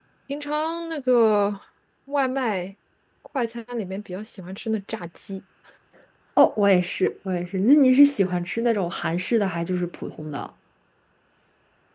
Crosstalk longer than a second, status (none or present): none